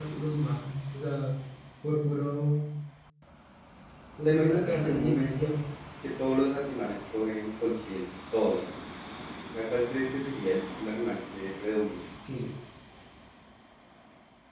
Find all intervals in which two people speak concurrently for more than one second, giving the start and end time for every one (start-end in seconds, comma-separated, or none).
4.2-5.5